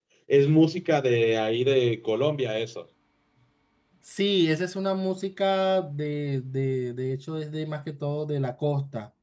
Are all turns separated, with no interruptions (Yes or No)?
Yes